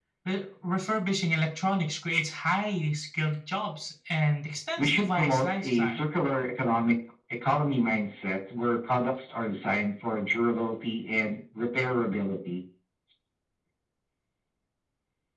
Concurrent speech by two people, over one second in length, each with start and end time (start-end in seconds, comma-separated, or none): 4.8-6.0